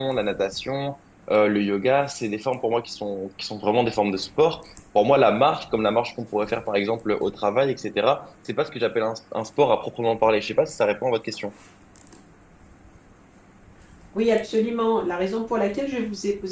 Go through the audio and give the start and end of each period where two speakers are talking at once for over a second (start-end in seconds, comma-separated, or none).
none